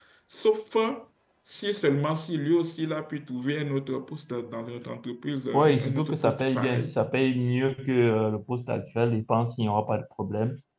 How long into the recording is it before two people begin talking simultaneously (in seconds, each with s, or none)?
5.5 s